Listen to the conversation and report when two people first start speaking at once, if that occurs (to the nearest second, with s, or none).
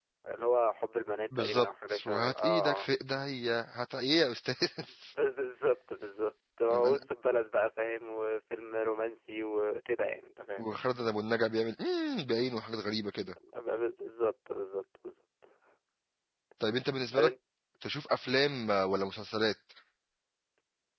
1 s